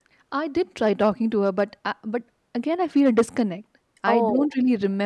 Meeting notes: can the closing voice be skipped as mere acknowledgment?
Yes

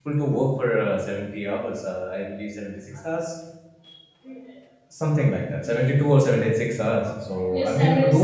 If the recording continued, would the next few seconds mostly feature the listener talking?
Yes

